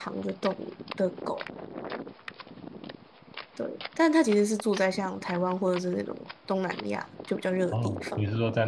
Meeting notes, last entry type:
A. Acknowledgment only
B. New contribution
B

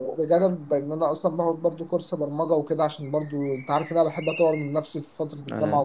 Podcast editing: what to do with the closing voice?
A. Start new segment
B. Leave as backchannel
B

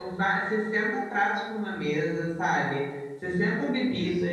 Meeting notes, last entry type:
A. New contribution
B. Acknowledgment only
B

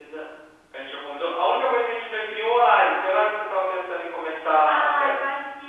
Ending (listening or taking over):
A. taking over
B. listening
A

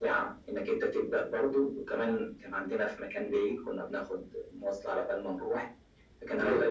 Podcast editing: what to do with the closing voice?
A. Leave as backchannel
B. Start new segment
A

